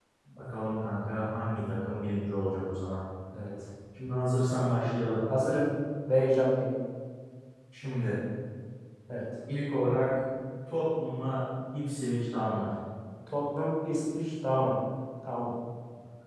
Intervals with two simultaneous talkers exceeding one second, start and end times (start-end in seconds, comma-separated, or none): none